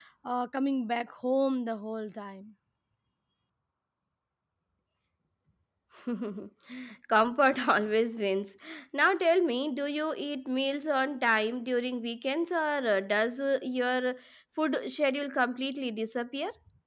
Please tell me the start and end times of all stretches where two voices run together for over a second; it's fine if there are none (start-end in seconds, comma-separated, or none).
none